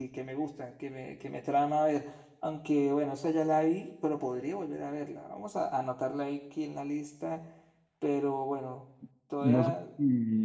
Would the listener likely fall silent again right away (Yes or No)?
No